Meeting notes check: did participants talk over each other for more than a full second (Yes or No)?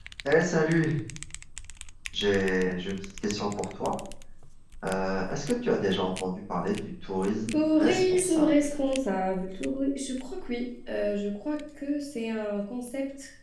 Yes